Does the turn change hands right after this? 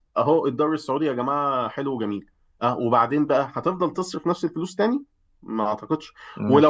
No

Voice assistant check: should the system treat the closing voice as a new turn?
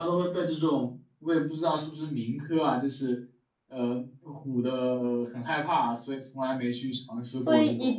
Yes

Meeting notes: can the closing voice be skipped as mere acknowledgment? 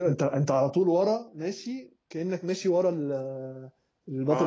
No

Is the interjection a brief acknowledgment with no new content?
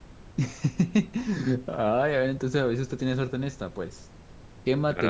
Yes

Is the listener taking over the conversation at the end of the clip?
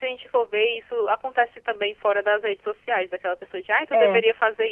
No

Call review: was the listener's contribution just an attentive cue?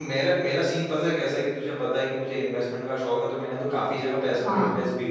Yes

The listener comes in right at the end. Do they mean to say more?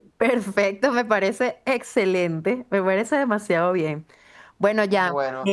No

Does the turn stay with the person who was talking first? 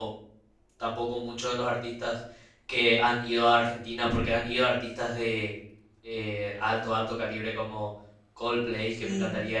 Yes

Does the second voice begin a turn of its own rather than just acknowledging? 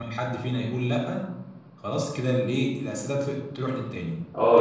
Yes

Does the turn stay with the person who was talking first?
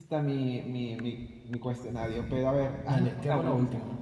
No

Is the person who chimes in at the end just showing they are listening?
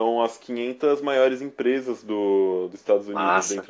Yes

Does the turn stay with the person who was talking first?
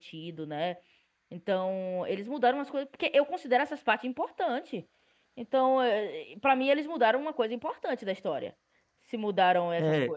No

